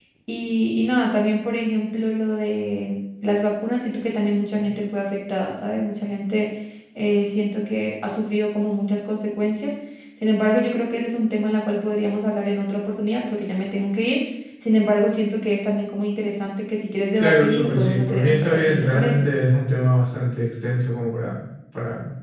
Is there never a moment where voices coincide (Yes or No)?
No